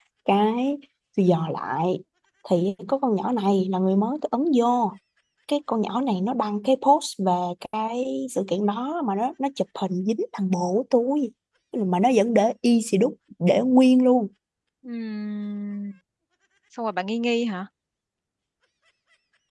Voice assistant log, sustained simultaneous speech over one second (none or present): none